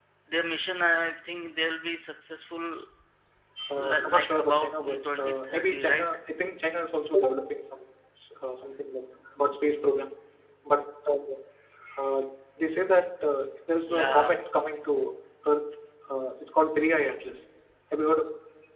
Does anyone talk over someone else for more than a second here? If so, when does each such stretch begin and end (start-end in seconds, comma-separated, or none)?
3.8-6.0